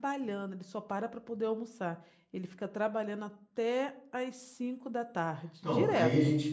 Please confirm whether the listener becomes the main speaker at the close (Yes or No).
Yes